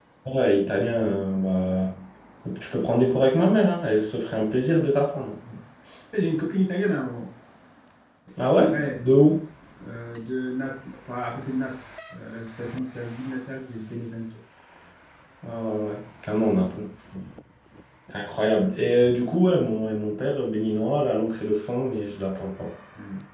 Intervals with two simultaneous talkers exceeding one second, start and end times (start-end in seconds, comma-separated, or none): none